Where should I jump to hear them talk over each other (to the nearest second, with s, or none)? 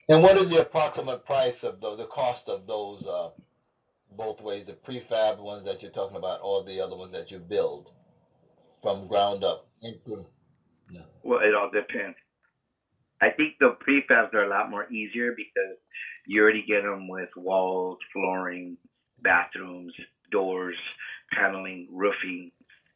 none